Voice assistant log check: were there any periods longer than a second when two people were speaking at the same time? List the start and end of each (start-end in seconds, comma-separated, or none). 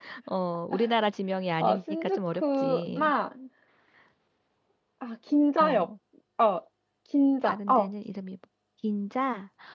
1.6-3.1